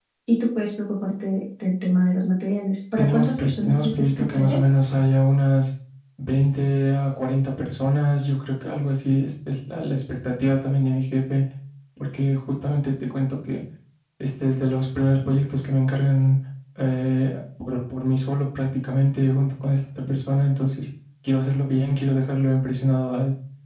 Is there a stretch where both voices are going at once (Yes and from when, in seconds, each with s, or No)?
Yes, from 3.0 s